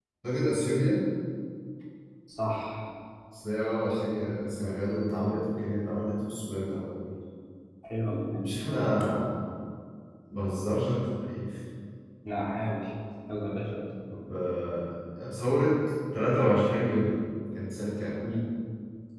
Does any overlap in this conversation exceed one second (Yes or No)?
No